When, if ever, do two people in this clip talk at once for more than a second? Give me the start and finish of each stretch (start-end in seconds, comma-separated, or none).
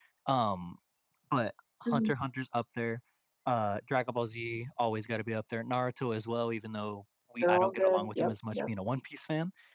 7.4-8.7